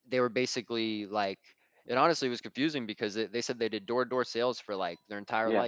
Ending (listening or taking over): listening